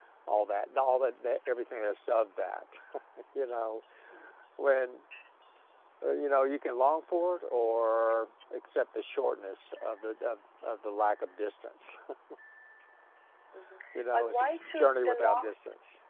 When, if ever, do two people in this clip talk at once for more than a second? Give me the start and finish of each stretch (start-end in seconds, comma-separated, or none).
14.0-15.5